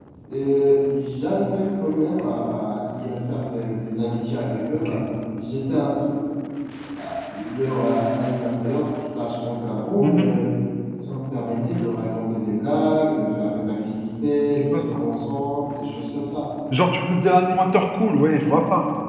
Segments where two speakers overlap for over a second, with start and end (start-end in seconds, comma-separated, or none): none